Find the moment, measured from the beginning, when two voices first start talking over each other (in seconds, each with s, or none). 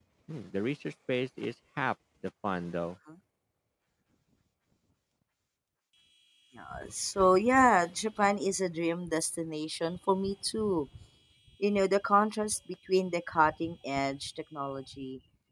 none